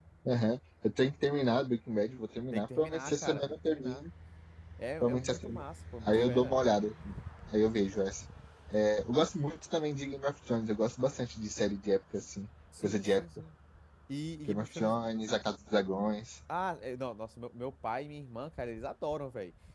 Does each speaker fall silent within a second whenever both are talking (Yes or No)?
No